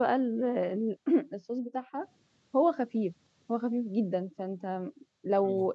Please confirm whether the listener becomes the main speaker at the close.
No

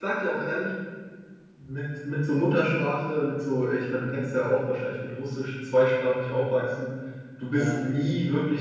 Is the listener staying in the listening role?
Yes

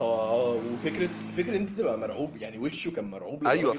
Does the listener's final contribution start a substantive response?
Yes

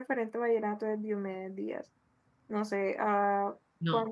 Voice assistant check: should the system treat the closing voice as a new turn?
No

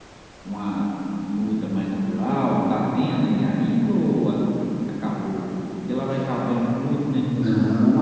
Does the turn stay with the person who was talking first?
No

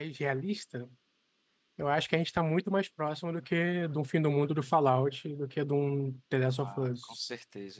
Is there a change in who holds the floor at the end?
Yes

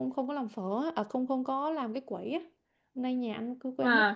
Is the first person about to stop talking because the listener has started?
No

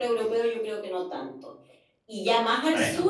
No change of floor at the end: Yes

